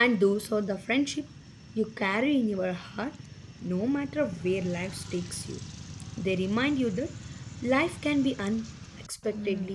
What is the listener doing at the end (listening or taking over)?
taking over